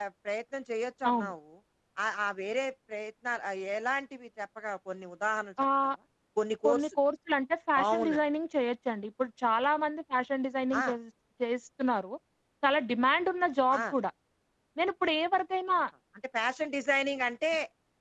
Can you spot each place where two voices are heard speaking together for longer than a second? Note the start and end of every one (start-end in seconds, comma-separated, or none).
none